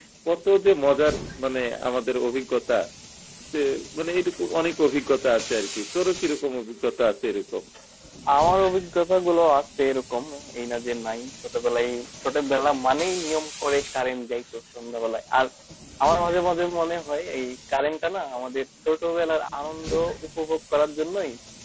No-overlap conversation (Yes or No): Yes